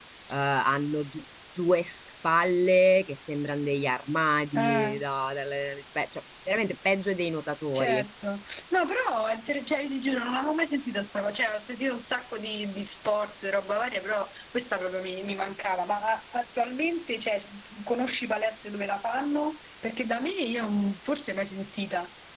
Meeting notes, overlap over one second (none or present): none